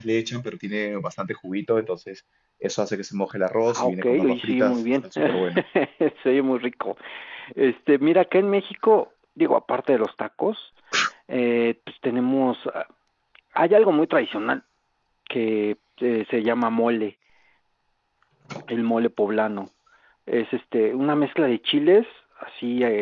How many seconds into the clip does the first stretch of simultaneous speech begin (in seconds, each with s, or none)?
3.7 s